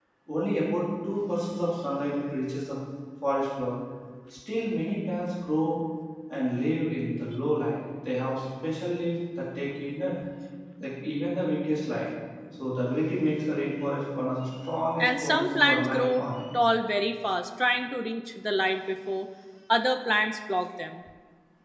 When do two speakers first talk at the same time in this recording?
15.0 s

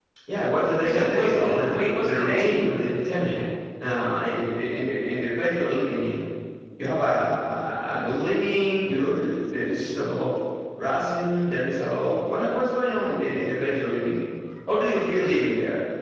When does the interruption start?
0.8 s

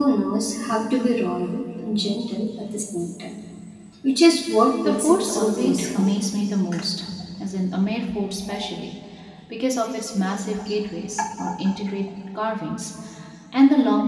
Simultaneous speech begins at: 4.8 s

